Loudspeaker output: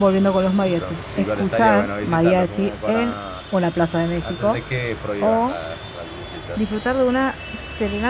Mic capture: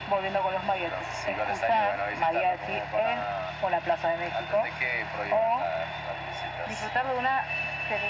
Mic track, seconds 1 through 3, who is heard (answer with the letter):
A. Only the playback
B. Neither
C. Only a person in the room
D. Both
A